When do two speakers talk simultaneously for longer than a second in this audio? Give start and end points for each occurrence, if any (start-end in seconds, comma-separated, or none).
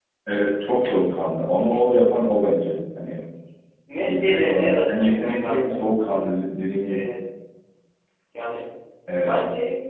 4.0-5.8